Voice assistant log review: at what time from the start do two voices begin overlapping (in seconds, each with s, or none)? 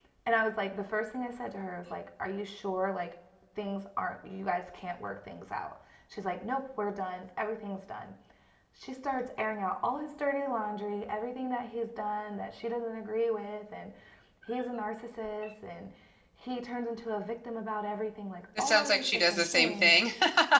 18.6 s